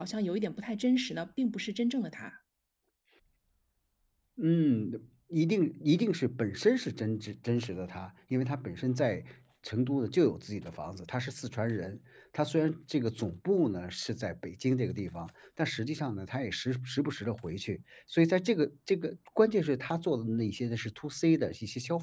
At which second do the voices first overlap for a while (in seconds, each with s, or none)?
none